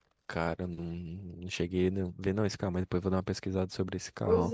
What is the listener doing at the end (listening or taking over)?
taking over